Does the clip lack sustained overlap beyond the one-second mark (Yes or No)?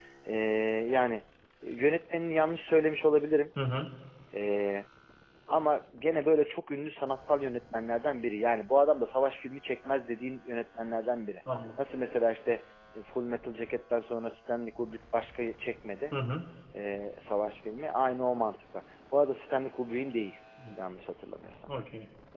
Yes